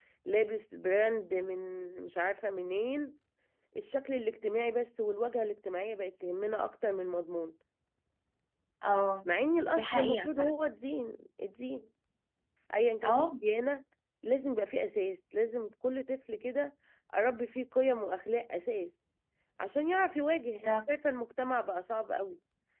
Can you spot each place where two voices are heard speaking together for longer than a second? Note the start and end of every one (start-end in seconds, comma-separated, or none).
9.2-10.6